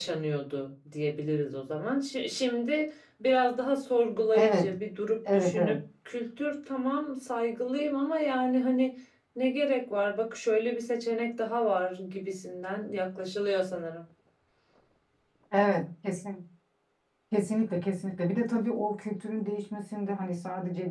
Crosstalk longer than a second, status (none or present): none